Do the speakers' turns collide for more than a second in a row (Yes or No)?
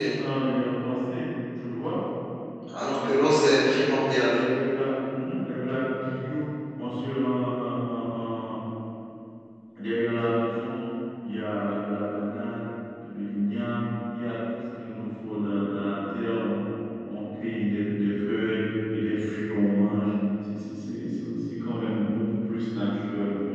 Yes